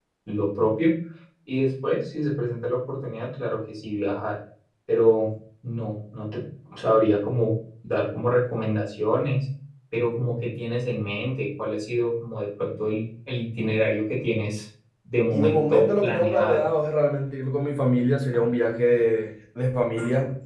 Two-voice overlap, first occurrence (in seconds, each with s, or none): 15.3 s